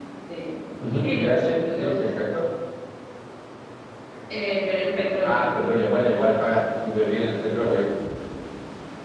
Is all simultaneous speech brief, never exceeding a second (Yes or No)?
No